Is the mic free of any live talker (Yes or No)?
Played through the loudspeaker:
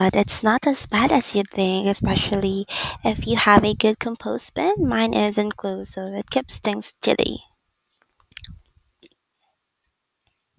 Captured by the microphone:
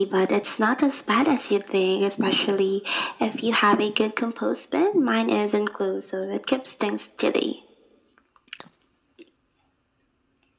Yes